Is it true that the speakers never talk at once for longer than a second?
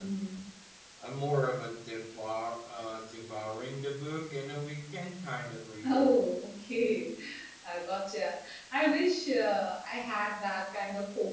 Yes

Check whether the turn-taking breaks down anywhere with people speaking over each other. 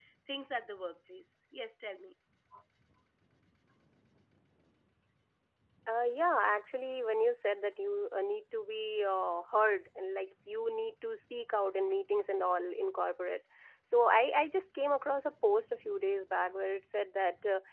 No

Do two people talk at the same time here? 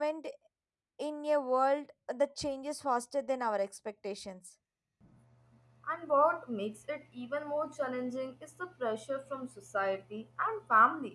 No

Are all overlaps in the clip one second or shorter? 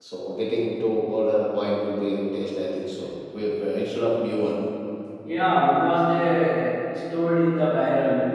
Yes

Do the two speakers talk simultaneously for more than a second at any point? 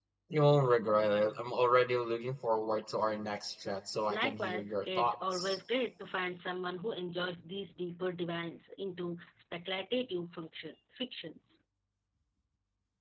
Yes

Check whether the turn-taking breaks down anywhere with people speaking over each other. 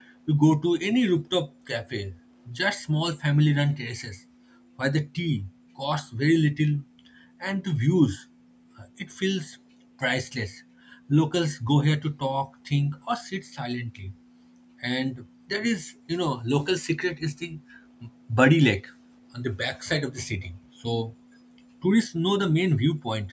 No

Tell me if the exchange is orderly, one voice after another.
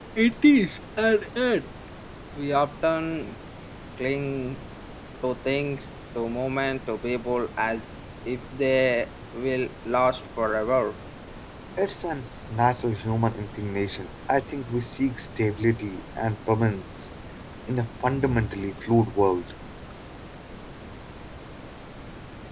Yes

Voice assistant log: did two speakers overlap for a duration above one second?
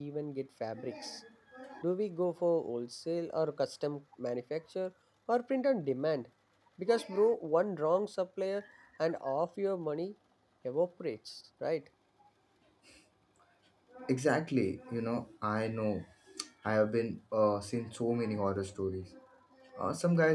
No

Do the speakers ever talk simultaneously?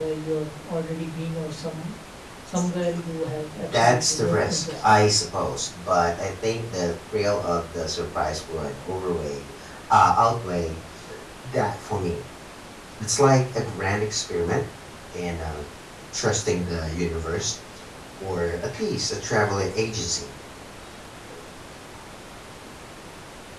Yes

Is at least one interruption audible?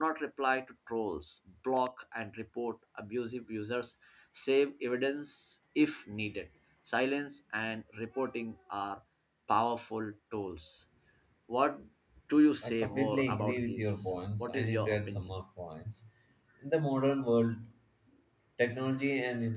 Yes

